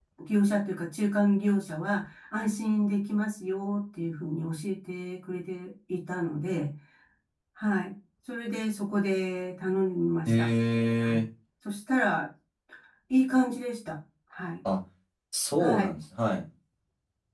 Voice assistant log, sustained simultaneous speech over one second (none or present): none